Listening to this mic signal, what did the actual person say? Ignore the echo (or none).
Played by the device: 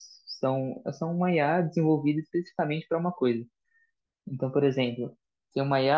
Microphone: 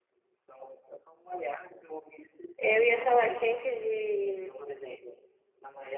Eu ia falar que antes de,